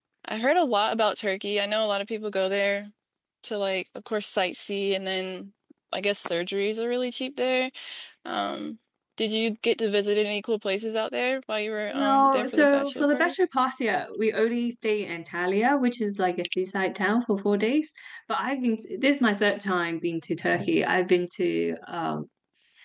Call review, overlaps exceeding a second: present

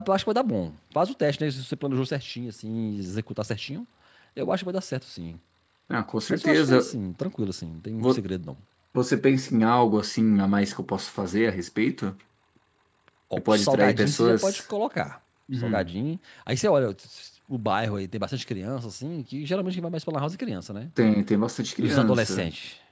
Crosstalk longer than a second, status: present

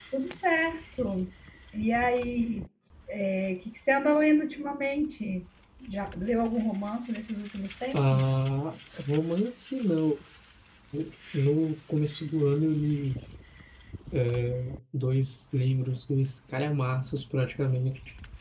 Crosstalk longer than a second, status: none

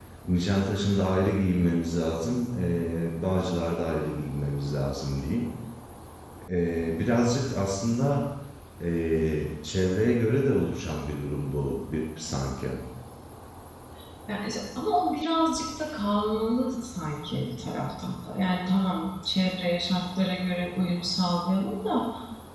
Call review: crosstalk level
none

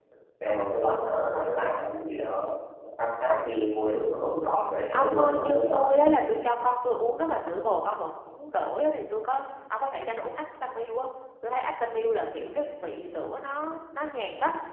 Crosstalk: present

